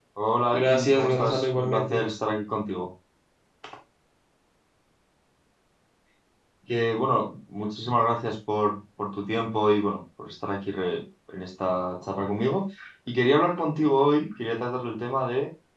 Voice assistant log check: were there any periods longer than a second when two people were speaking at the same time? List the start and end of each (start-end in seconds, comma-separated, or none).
0.5-2.1